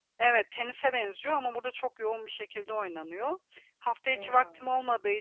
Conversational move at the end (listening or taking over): listening